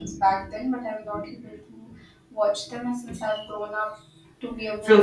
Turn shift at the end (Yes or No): Yes